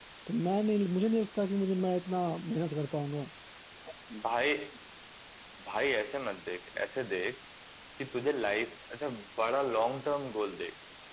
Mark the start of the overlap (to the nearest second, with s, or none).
none